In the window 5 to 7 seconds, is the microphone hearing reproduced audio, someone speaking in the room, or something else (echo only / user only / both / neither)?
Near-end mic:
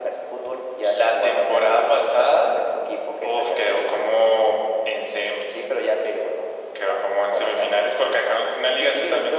echo only